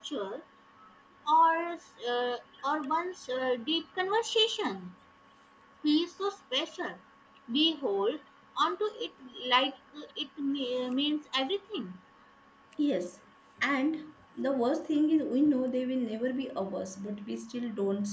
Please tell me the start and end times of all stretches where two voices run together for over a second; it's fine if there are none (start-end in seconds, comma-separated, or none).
none